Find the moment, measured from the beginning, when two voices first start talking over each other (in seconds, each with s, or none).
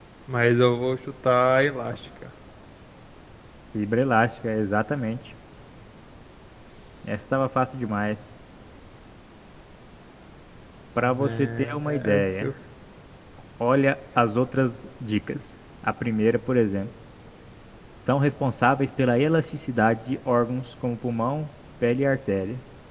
11.2 s